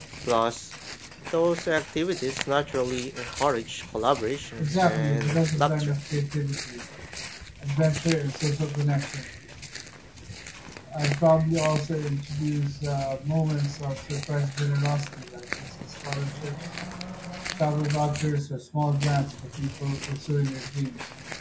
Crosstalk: present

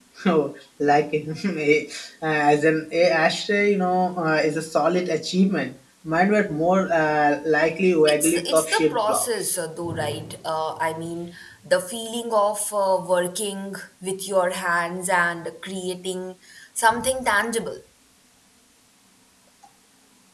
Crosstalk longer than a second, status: present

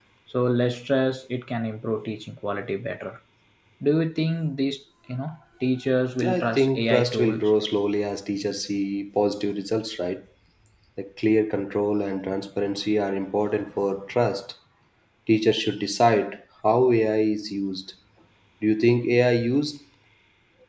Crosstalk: present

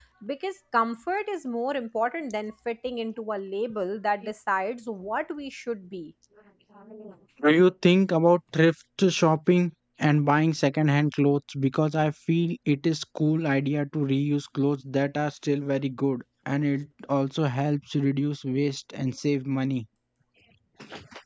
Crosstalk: none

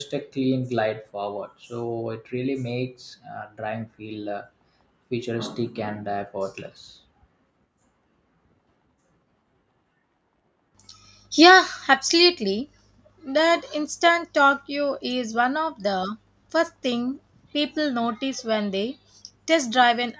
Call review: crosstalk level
none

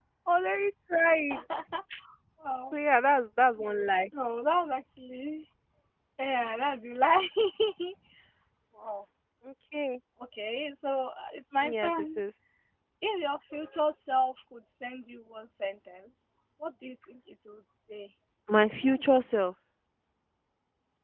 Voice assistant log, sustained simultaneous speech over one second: none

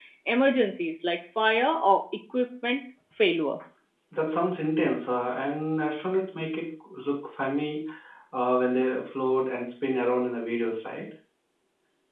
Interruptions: none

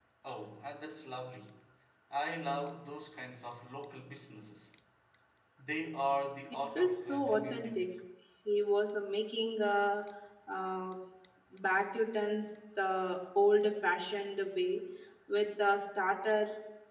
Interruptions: present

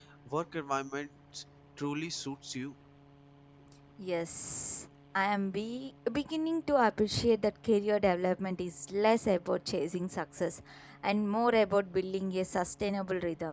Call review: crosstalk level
none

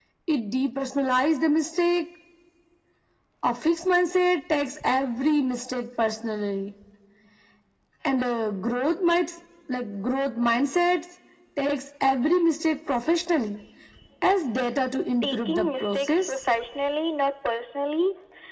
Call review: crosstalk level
present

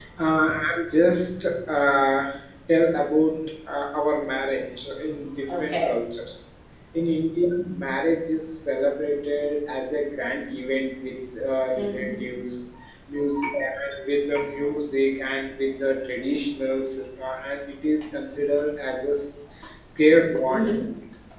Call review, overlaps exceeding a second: none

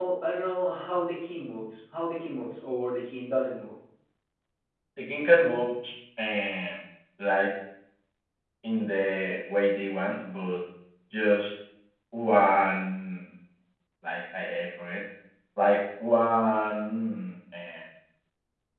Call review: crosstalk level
none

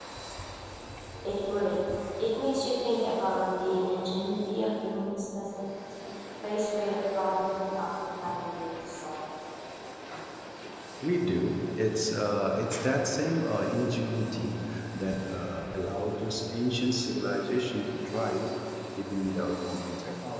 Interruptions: none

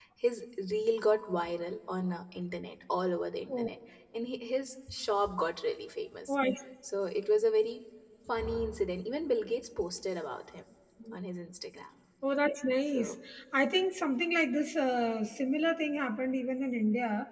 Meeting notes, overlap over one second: none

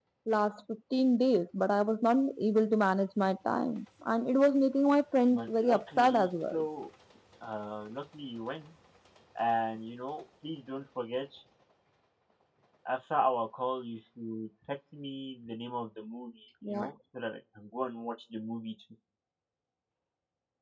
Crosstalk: present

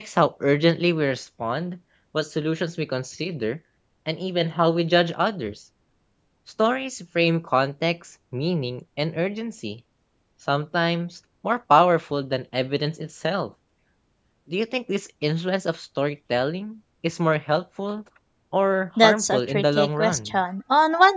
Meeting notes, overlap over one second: present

